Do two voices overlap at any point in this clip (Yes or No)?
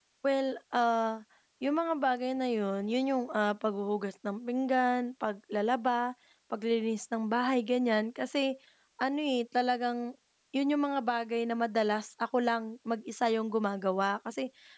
No